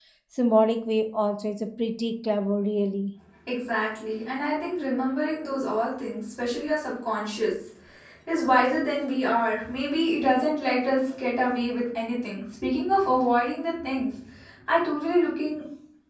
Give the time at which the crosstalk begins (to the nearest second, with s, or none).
none